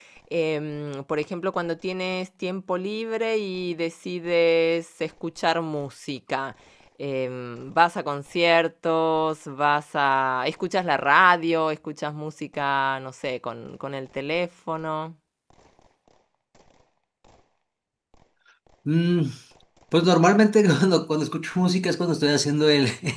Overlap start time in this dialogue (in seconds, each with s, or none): none